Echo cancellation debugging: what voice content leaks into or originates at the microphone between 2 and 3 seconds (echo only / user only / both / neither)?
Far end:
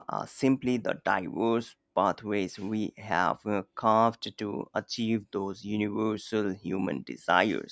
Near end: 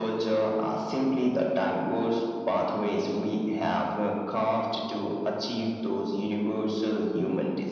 echo only